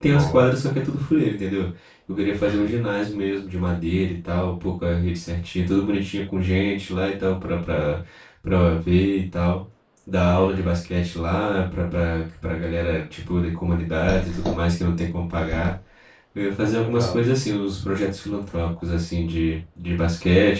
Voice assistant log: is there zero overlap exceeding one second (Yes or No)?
Yes